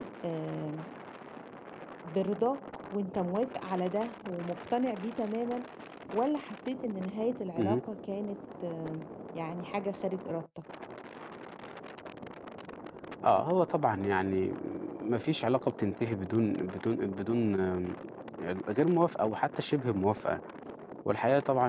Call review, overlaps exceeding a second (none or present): none